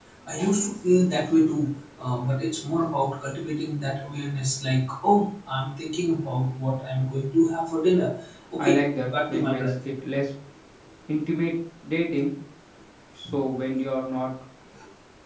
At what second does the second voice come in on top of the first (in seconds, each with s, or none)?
8.6 s